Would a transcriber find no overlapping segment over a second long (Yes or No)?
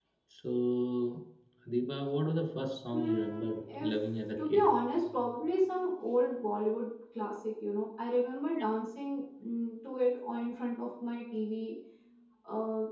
No